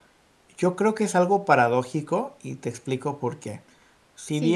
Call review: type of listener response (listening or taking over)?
listening